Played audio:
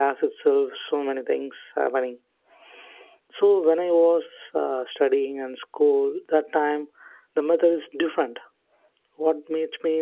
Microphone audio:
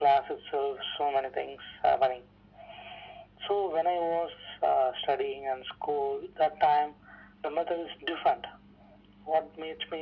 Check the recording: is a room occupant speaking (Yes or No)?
No